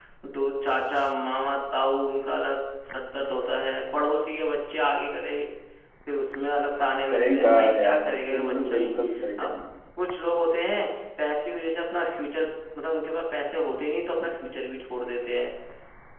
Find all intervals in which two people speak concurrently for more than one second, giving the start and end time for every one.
7.1-8.9

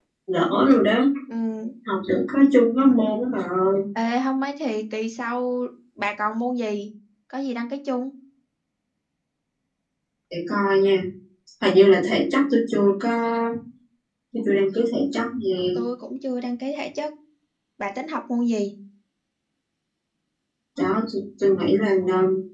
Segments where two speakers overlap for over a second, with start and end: none

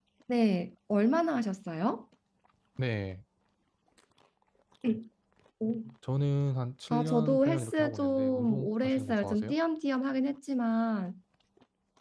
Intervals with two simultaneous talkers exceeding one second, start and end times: 6.9-9.5

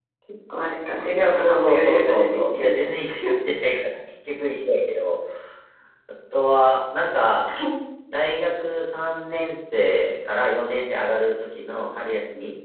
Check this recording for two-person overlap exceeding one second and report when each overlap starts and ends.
1.3-3.0

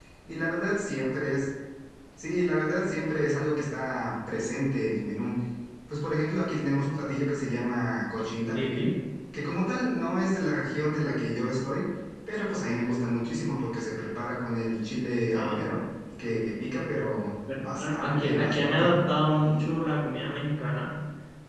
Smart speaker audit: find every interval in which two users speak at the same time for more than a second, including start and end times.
17.6-18.9

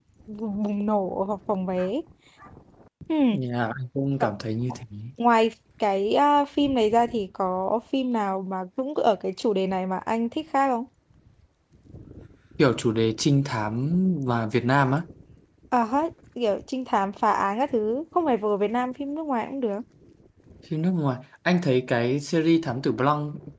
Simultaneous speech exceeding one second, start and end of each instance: none

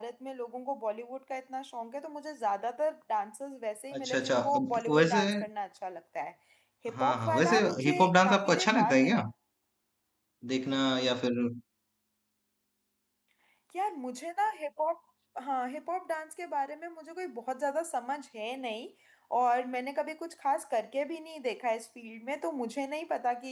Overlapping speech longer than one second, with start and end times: 4.0-5.2, 6.9-9.2

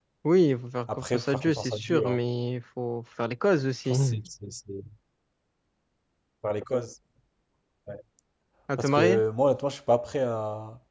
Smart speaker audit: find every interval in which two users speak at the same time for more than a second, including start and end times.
0.9-2.2

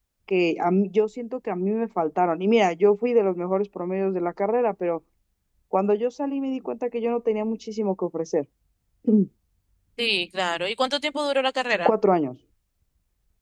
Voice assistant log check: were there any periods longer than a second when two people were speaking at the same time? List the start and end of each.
none

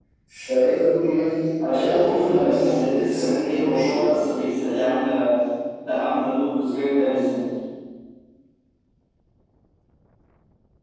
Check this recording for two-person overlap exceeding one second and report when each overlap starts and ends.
1.7-4.1

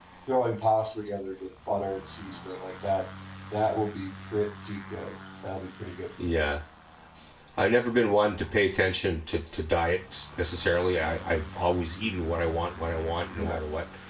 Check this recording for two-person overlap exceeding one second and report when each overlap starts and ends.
none

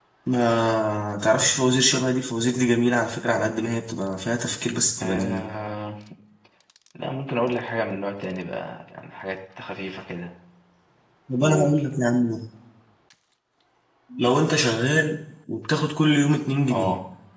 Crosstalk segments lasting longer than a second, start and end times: none

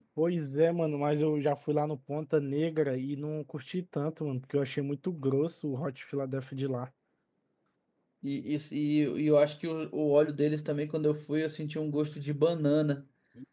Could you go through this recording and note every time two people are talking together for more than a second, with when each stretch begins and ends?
none

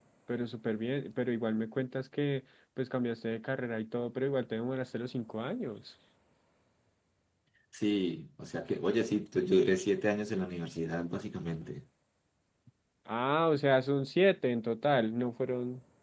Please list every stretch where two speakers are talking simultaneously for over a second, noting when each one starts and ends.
none

